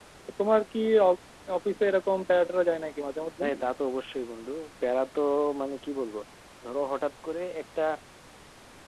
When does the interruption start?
none

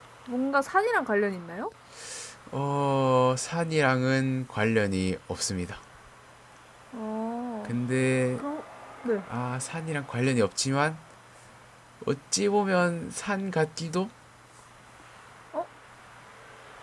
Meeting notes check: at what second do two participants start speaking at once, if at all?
none

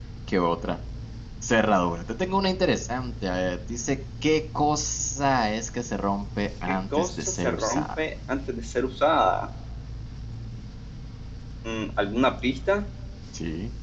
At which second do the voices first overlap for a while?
7 s

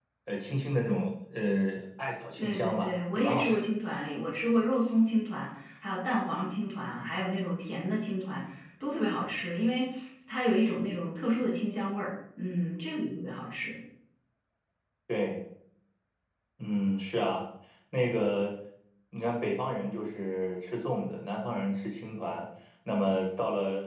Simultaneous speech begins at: 2 s

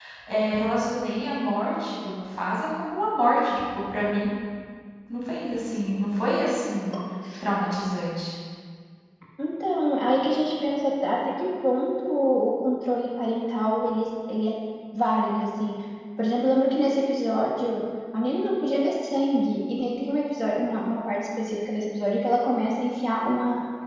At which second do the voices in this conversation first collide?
none

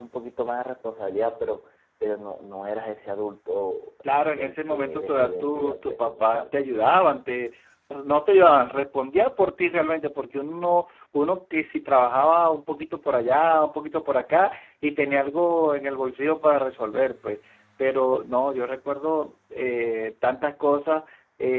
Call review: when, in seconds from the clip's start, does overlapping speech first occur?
4 s

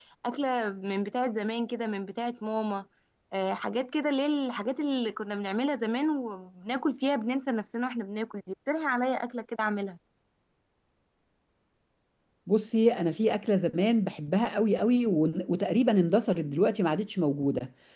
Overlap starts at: none

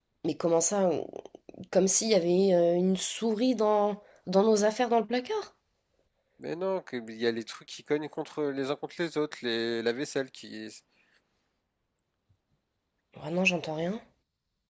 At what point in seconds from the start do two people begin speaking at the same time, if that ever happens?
none

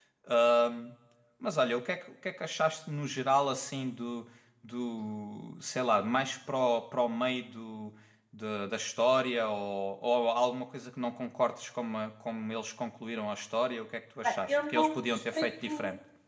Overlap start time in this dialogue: 14 s

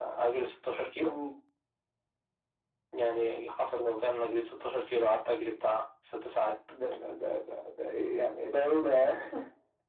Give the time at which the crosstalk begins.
none

